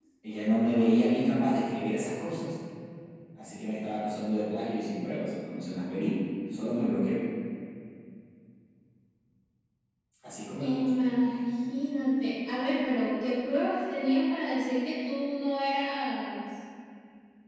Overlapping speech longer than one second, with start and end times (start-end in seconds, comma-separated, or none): none